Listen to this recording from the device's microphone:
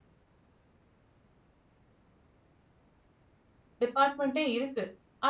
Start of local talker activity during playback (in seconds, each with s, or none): 3.8 s